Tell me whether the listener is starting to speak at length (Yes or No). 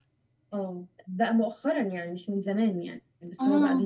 No